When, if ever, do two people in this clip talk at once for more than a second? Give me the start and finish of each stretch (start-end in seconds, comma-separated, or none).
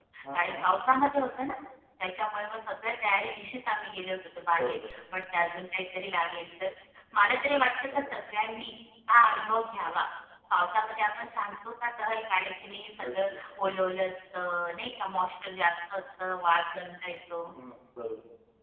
none